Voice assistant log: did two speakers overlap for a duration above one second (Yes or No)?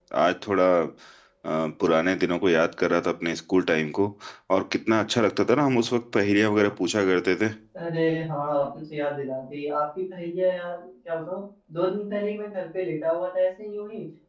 No